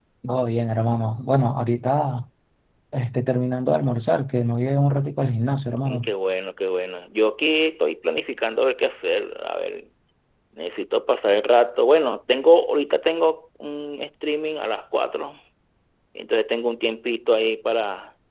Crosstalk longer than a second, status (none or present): none